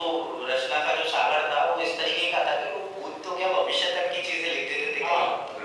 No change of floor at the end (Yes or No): No